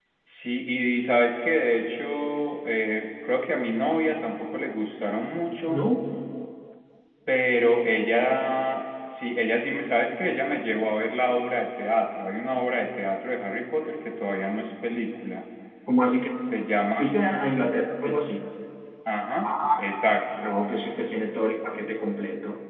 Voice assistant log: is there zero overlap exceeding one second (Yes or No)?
Yes